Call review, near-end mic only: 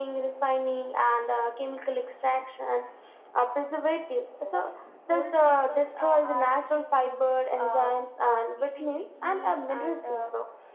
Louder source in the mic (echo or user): echo